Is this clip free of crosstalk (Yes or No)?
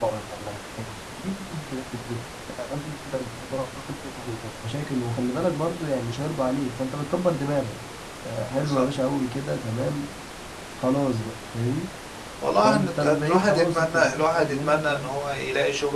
No